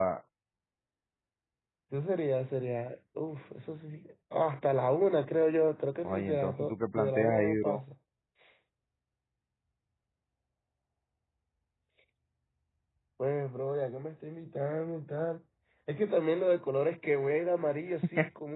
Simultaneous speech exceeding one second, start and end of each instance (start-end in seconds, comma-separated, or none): 6.0-7.8